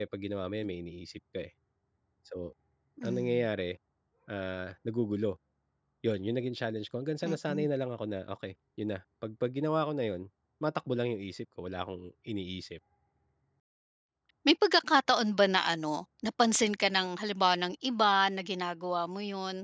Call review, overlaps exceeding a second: none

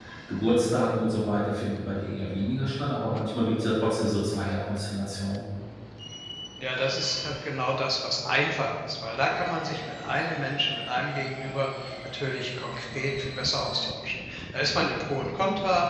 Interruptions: none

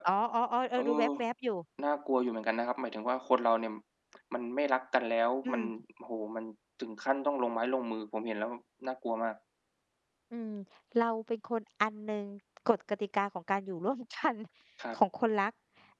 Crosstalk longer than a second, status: none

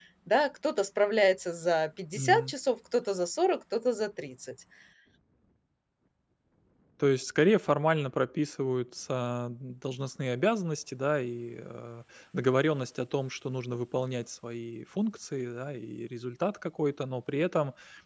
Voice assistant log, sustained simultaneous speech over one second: none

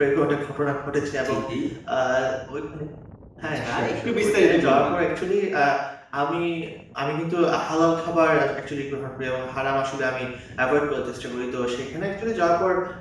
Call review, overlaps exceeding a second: present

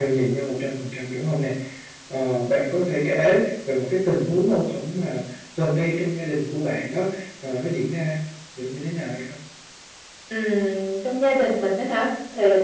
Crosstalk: none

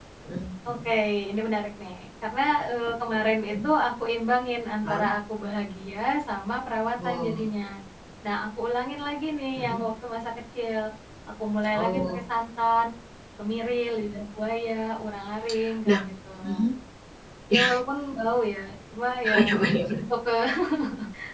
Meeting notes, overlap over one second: none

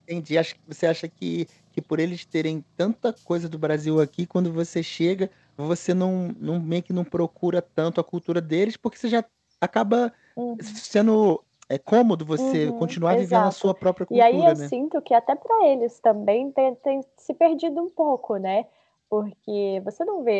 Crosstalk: present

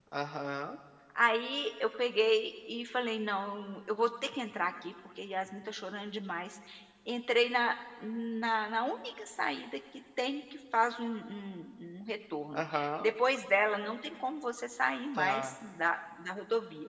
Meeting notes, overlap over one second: none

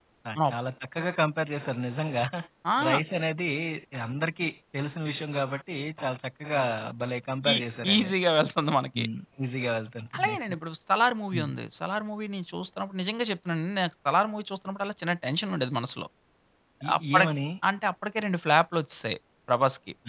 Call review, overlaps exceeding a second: none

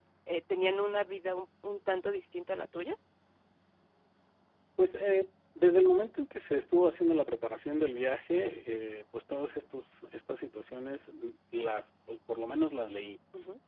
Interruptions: none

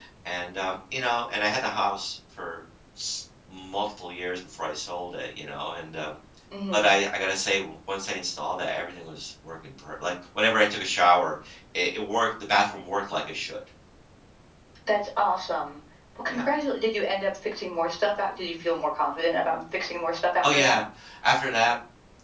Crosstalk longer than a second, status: none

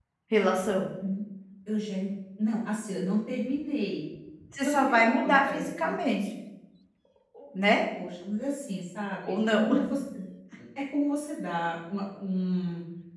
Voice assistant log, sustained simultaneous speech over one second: present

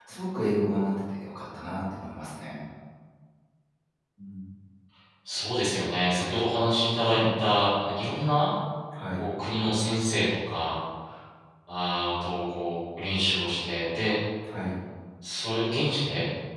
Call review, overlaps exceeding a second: none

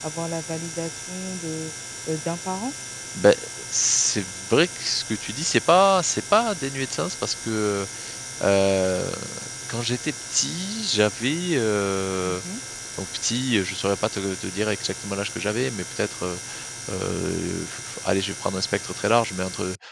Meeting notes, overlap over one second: none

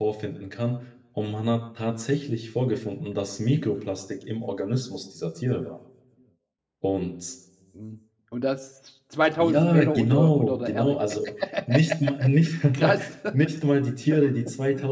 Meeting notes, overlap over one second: present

